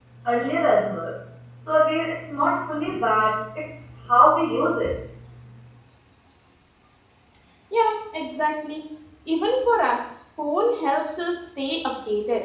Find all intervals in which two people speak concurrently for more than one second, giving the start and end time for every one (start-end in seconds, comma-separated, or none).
none